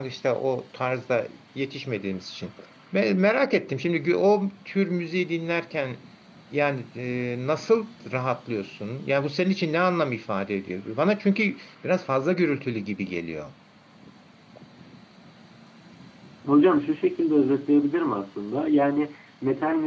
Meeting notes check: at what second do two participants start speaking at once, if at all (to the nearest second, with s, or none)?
none